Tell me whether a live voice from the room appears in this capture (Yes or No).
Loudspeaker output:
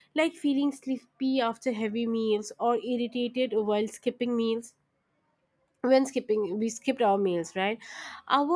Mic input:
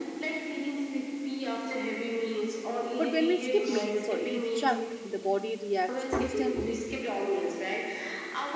Yes